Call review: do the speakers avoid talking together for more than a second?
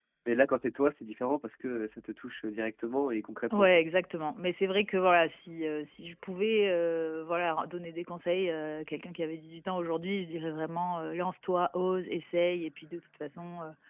Yes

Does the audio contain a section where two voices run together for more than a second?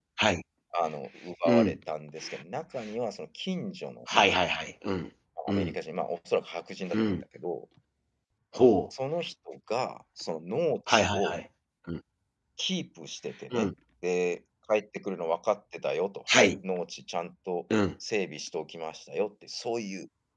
No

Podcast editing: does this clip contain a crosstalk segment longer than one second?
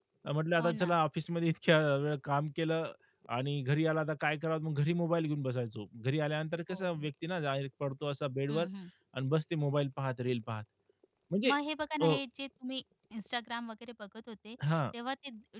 No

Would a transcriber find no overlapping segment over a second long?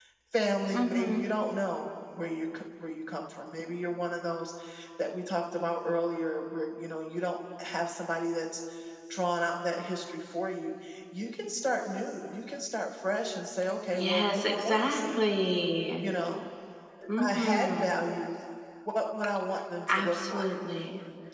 No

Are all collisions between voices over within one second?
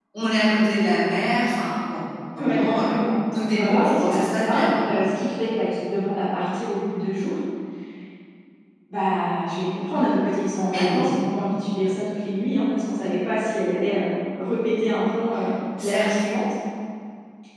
No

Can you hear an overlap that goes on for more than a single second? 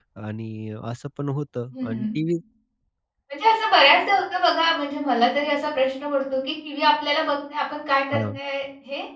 No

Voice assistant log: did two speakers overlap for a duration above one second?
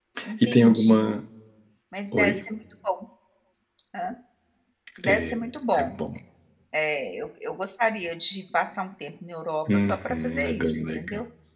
Yes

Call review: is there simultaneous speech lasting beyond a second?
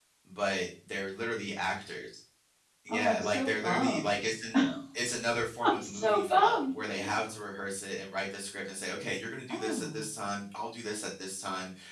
Yes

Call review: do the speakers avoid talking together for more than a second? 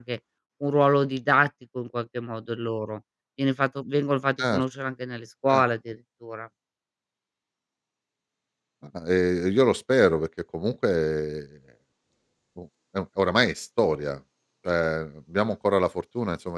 Yes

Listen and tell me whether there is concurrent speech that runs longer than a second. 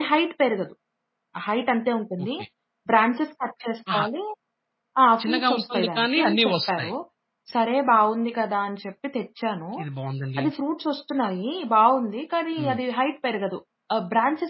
Yes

